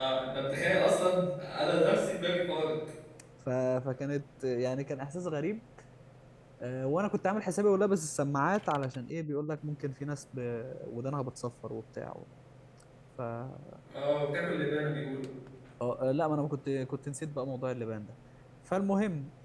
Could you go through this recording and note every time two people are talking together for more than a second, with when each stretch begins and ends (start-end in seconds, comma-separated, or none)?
none